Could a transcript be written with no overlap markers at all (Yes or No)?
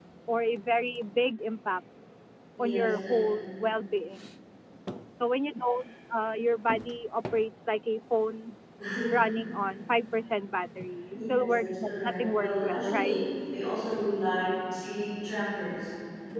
No